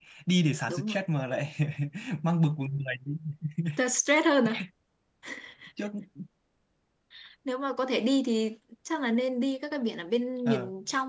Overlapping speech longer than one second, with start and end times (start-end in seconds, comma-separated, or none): none